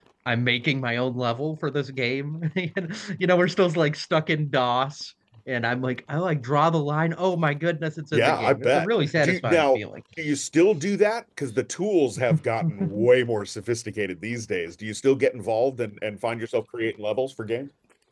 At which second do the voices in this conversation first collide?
8.1 s

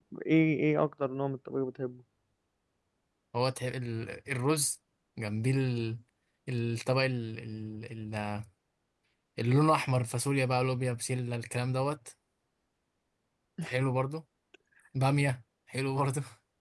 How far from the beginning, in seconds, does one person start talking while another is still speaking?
none

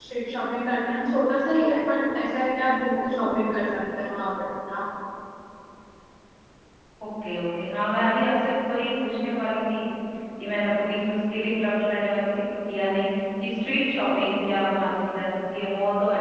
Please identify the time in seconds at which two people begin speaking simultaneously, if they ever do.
none

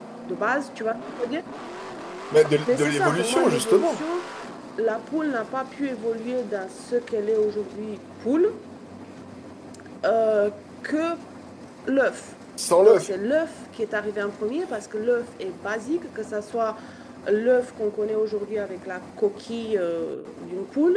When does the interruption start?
2.7 s

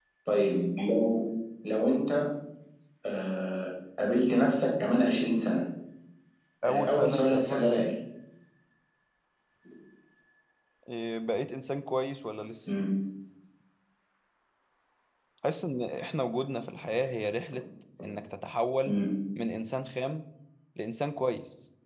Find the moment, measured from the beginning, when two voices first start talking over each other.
6.6 s

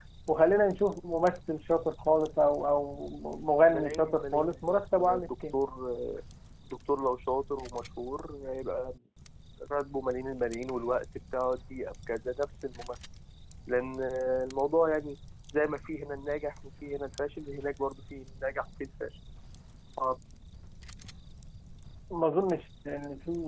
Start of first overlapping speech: 3.7 s

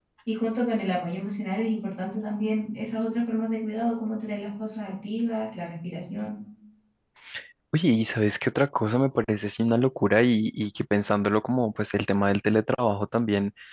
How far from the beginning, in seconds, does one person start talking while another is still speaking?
none

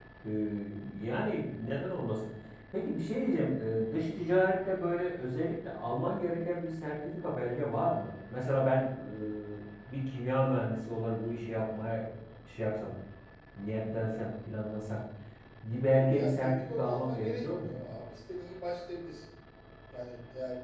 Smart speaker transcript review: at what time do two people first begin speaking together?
16.2 s

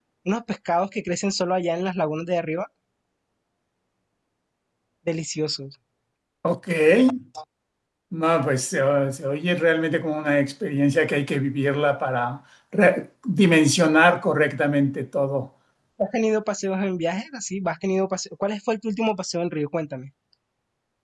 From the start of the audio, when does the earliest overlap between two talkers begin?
none

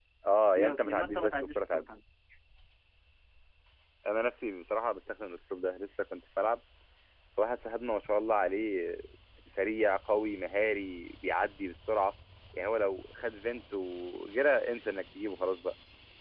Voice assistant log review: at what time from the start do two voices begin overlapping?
0.6 s

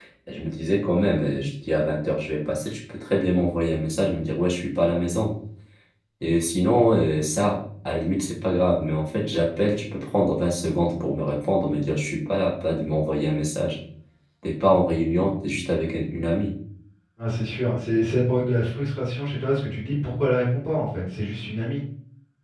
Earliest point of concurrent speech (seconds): none

